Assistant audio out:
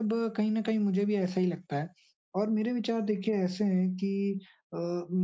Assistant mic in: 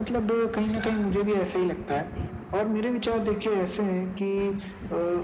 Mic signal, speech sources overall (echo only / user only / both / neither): echo only